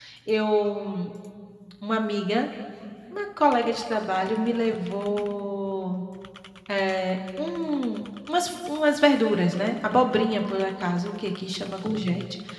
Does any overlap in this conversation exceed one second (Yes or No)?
No